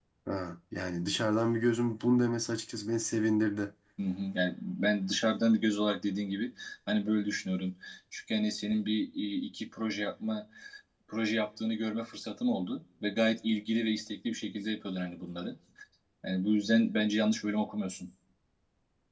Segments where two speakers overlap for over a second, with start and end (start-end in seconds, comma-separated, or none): none